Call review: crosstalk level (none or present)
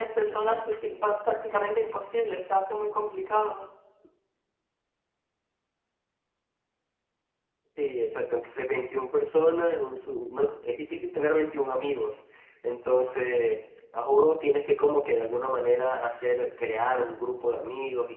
none